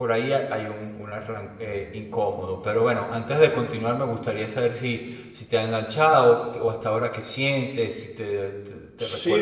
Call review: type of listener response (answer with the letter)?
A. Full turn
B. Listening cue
A